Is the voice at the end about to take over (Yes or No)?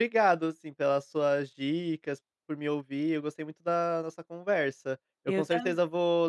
No